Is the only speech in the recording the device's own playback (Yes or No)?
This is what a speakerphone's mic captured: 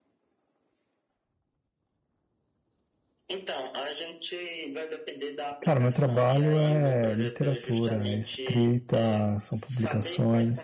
No